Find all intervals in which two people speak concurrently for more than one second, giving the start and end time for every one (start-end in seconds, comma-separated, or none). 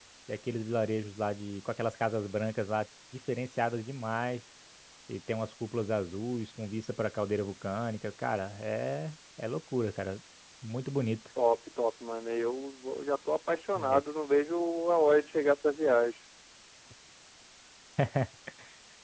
none